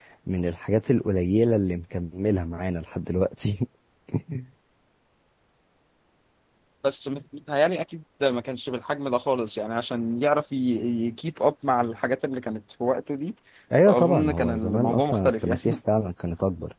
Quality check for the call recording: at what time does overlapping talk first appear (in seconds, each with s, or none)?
13.9 s